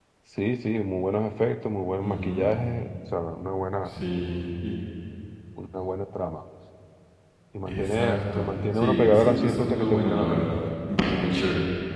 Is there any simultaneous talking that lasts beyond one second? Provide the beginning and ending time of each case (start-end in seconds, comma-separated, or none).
7.7-10.7